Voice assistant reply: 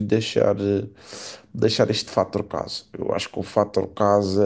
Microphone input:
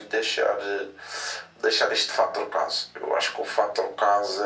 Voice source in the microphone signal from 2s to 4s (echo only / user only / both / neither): echo only